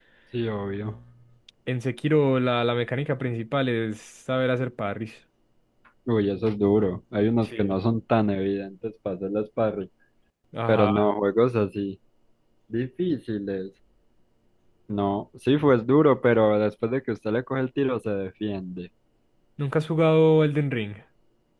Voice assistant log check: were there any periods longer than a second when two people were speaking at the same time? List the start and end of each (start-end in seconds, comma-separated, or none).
none